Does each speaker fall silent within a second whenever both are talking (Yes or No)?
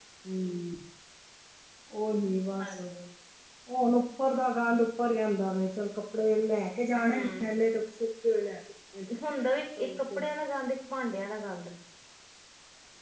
Yes